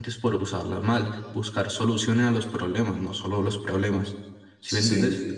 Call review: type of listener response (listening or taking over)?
taking over